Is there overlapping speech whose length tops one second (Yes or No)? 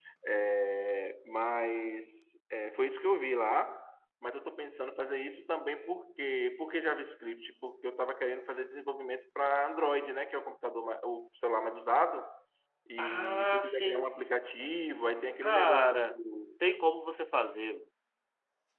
Yes